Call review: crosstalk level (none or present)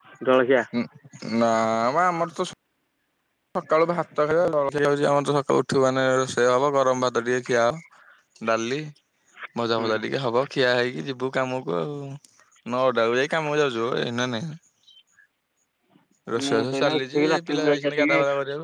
present